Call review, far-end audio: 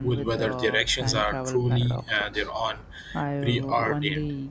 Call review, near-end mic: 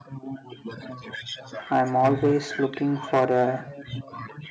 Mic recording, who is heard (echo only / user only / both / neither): both